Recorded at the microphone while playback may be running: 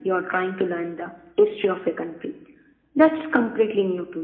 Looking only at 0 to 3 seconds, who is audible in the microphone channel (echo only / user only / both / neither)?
echo only